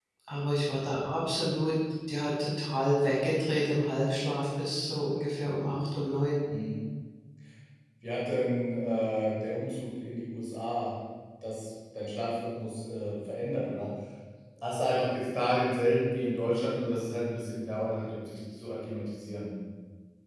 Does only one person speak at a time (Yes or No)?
Yes